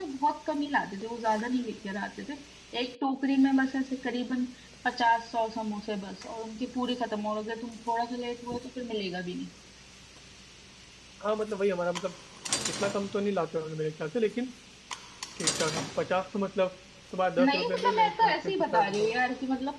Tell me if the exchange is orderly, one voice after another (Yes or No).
No